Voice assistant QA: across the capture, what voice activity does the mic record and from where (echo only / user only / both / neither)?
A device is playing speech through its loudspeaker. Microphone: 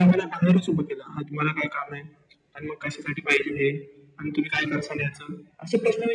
echo only